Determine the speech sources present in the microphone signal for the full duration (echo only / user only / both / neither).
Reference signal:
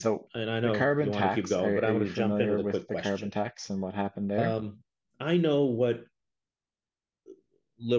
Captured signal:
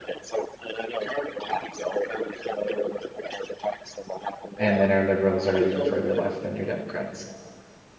both